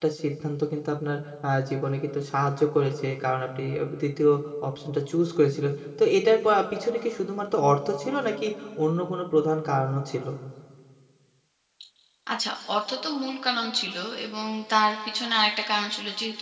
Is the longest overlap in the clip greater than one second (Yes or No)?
No